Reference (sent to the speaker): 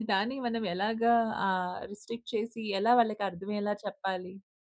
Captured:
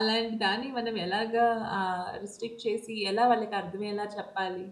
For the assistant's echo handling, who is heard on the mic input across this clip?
echo only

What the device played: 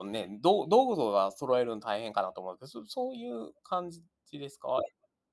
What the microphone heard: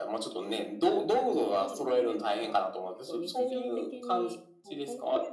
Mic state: both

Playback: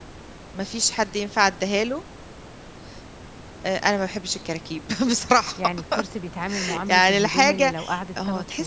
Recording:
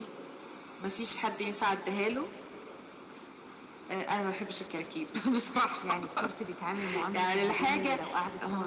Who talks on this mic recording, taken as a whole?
echo only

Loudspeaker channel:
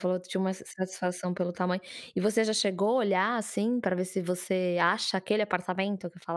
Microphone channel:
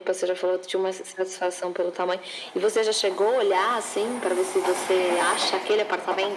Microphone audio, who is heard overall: echo only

